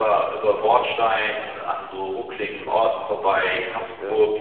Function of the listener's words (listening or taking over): listening